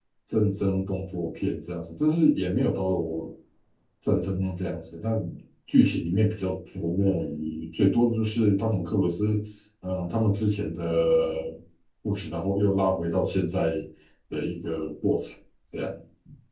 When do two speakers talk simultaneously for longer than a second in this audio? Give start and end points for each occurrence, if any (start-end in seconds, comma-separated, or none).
none